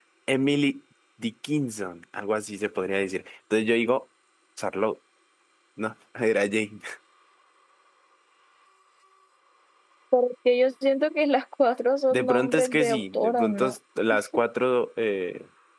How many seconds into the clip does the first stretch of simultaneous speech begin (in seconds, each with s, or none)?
12.1 s